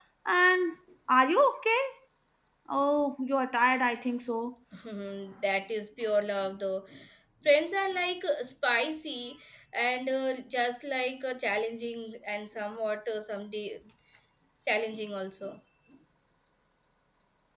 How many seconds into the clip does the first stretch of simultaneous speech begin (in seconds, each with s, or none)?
none